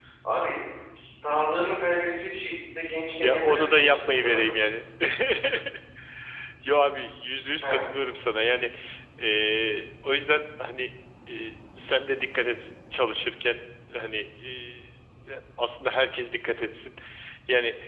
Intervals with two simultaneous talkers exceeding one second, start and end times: 3.2-4.5

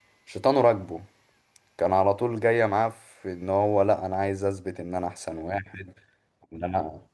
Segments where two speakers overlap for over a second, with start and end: none

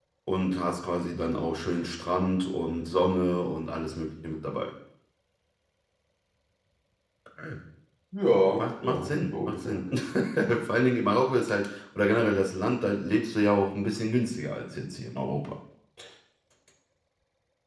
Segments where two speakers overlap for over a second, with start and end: 8.6-9.8

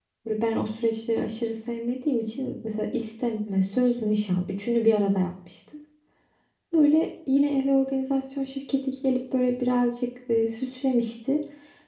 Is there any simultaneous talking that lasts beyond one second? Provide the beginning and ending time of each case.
none

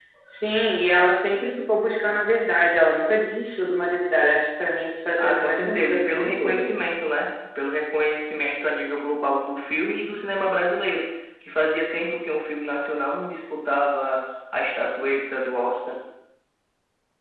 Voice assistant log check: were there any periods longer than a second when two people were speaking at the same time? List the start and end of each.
5.2-6.7

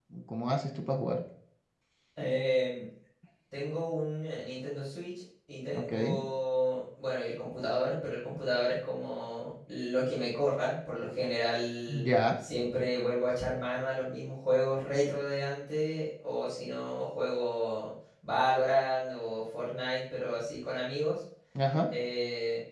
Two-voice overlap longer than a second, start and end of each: none

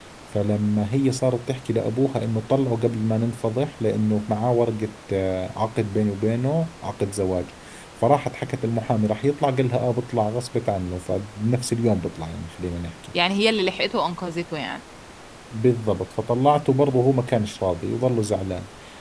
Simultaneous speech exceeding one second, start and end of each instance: none

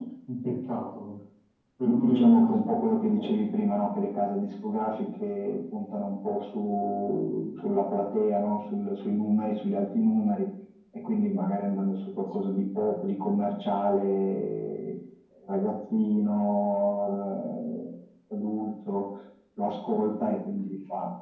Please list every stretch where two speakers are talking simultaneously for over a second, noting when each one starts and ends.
1.8-3.3

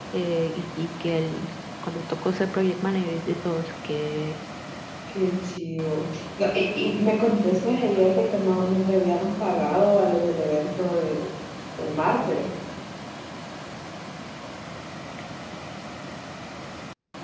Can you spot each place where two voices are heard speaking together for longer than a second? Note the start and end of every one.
none

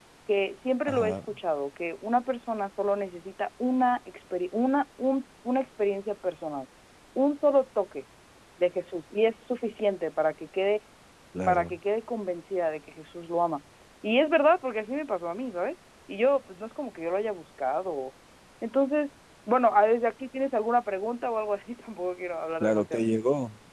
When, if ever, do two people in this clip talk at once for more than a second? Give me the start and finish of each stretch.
none

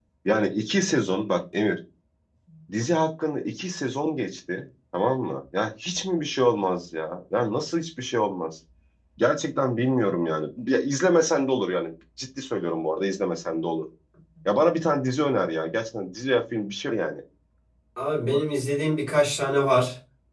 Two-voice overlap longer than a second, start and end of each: none

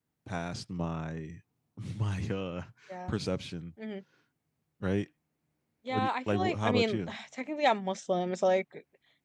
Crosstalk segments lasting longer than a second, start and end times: 5.9-7.1

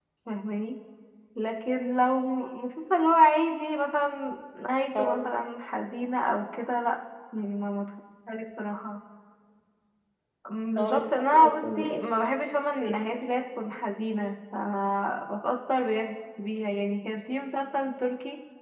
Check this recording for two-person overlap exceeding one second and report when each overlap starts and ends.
10.8-12.1

